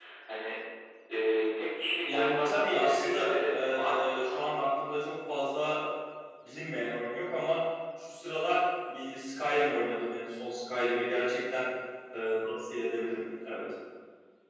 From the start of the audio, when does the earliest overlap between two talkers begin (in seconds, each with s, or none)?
2.1 s